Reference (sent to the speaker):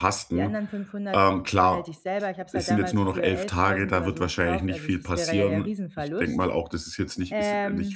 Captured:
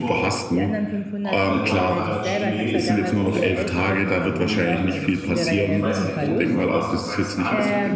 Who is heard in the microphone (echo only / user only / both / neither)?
both